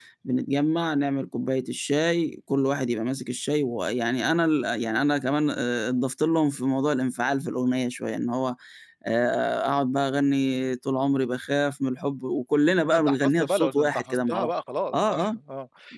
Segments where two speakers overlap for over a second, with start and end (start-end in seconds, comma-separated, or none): 12.9-14.5